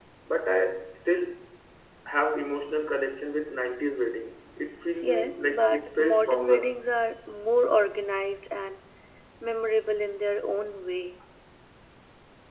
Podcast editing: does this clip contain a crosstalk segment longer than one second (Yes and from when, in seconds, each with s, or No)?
Yes, from 5.0 s